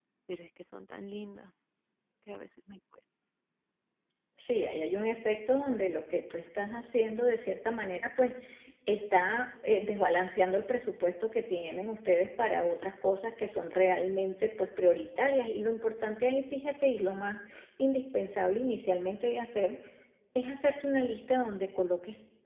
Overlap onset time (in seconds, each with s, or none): none